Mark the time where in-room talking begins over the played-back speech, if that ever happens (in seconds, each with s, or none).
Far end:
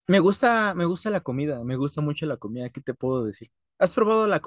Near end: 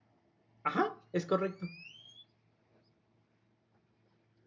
0.6 s